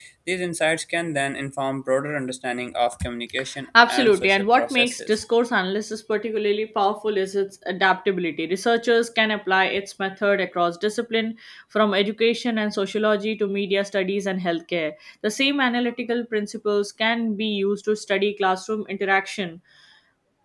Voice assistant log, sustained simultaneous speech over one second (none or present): present